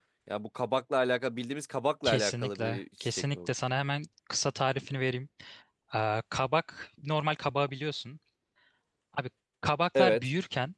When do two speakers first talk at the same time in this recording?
2 s

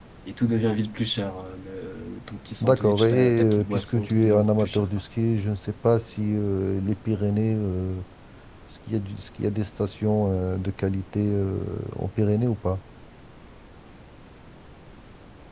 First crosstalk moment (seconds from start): 3 s

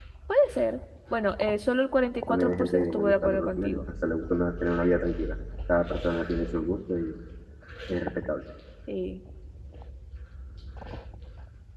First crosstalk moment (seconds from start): 2 s

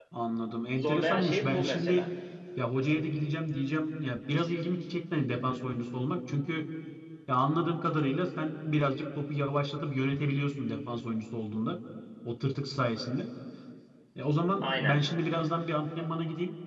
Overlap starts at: 1 s

